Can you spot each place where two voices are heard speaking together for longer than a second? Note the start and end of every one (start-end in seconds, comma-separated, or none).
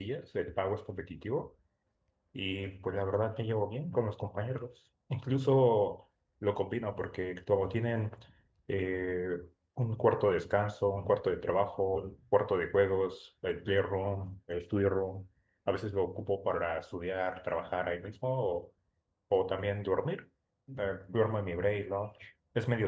none